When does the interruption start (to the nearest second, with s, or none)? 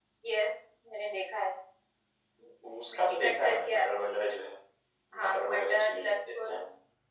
3 s